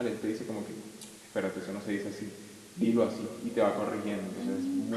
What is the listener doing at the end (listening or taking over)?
taking over